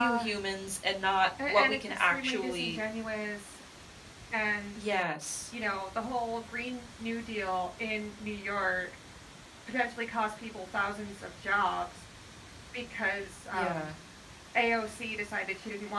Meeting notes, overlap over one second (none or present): present